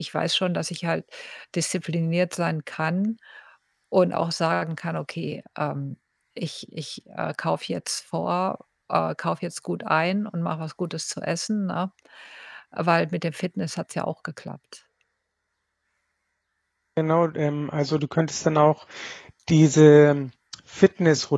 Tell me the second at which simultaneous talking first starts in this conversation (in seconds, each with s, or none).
none